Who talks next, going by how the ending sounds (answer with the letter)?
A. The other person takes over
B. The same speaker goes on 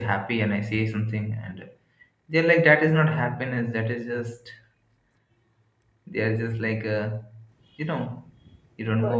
B